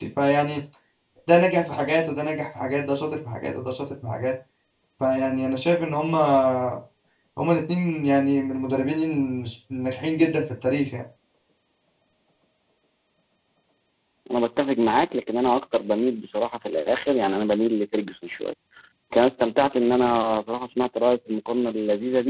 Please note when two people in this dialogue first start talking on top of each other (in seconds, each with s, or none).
none